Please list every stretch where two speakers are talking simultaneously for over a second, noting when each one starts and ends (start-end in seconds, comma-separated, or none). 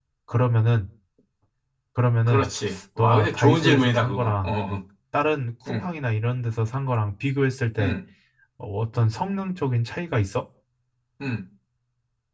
3.0-4.5